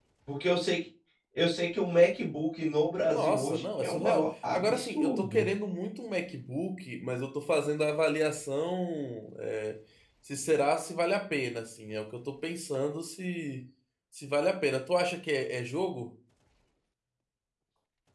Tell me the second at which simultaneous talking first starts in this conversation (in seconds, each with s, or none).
3.1 s